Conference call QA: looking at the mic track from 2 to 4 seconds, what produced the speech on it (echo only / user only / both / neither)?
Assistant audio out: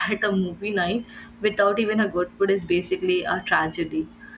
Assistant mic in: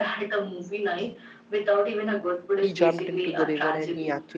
both